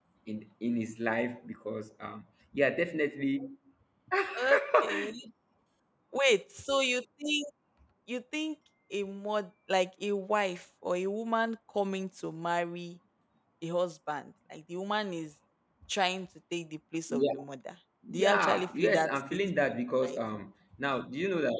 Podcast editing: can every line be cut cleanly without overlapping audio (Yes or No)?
No